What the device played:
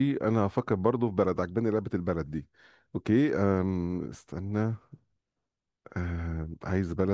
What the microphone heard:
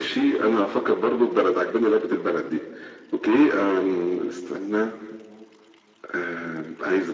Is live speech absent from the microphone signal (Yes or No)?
Yes